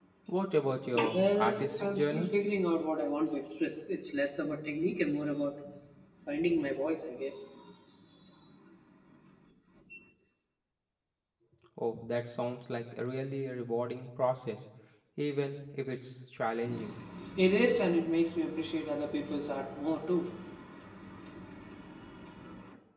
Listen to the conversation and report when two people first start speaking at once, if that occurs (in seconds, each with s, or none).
0.9 s